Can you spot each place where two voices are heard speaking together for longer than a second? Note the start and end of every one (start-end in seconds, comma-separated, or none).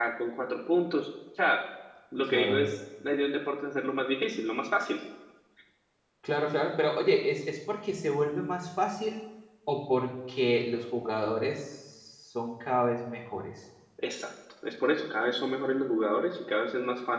none